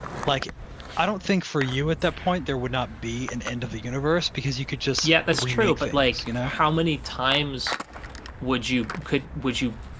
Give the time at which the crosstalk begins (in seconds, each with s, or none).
5.0 s